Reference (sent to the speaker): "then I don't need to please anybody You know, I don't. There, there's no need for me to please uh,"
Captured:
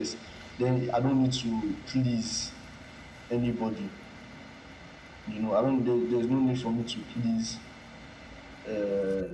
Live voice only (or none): none